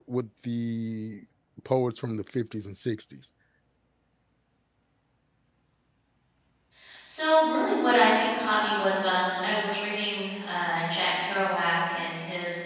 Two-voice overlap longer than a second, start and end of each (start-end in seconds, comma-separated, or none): none